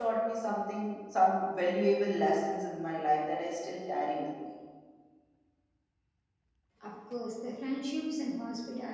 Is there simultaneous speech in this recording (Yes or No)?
No